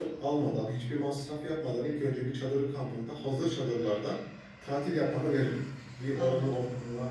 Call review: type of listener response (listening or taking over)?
listening